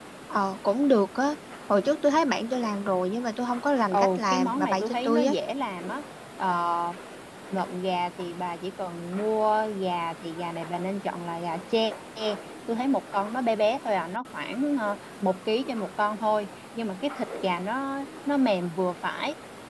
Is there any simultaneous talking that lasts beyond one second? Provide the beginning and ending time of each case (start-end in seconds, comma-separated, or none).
3.9-5.3